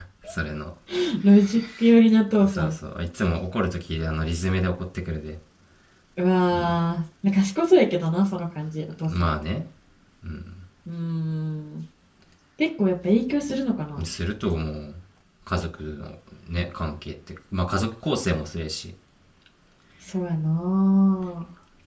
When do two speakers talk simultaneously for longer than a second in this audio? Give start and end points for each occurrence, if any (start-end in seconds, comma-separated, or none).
none